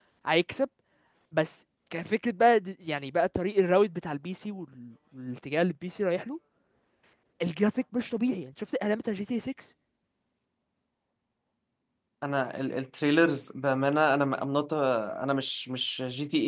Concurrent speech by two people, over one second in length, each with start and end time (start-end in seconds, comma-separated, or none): none